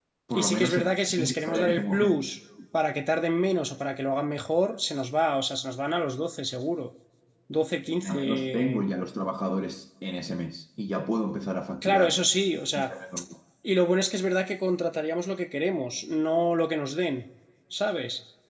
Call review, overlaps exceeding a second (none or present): present